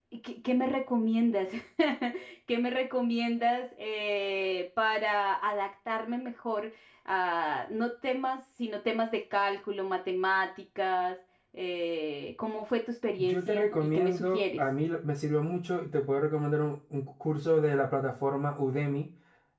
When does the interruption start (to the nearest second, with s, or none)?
13 s